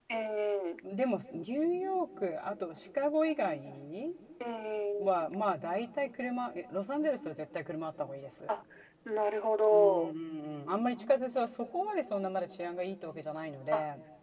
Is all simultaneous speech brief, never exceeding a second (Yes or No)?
Yes